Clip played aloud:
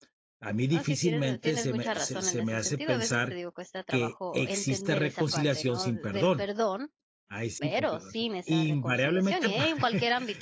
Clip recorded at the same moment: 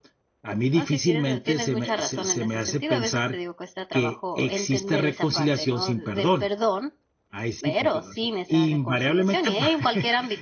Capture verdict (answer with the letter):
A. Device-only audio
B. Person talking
A